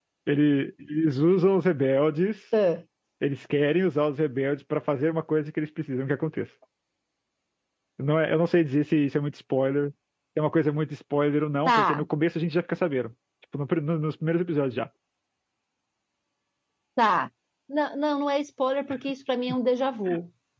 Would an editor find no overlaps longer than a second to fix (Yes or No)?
Yes